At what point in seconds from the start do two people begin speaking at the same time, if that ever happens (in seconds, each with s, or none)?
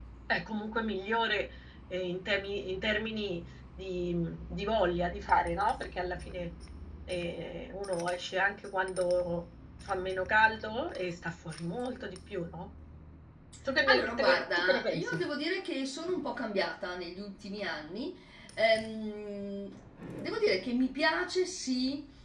13.9 s